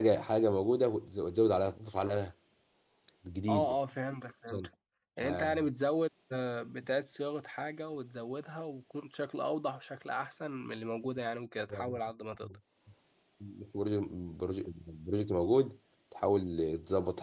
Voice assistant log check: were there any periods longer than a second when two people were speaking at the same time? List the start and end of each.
none

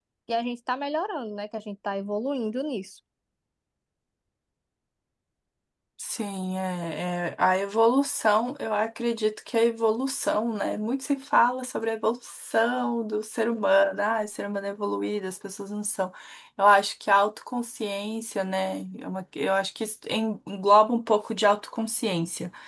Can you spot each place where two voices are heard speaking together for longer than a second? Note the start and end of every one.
none

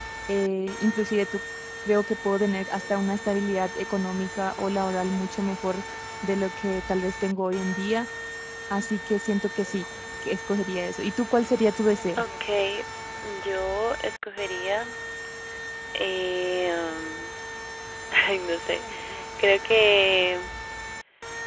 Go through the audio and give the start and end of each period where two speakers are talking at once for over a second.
none

